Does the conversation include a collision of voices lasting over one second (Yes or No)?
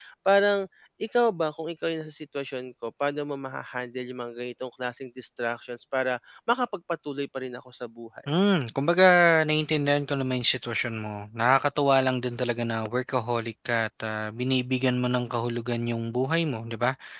No